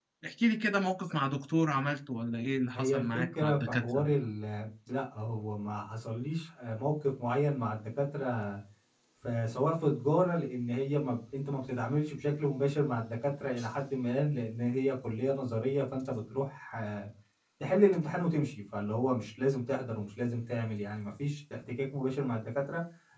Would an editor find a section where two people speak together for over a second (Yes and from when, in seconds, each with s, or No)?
Yes, from 2.7 s